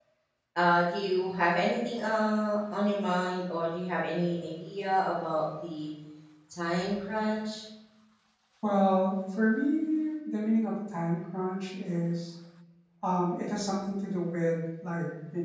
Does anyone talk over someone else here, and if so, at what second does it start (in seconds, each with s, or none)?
none